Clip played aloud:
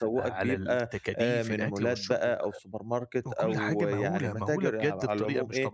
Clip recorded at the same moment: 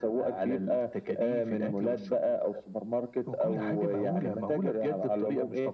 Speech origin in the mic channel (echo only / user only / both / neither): echo only